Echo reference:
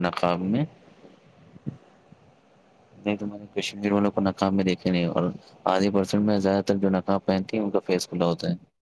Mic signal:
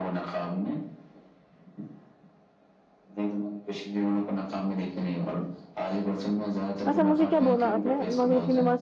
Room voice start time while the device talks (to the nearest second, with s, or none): 7 s